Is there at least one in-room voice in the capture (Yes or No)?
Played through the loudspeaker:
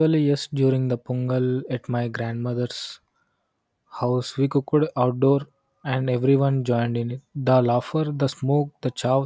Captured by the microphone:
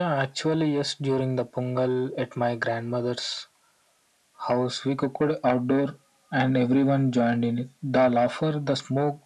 No